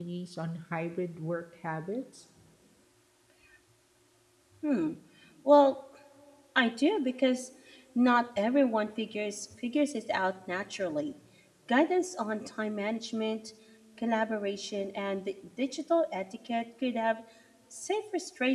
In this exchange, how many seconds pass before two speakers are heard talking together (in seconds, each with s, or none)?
none